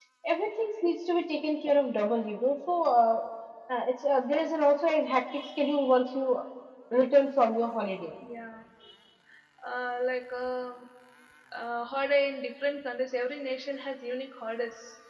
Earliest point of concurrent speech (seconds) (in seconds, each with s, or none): none